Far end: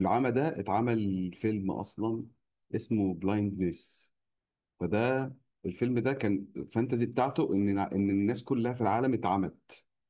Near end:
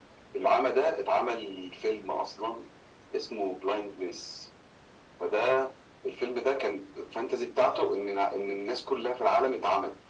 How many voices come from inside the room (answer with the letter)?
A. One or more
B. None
A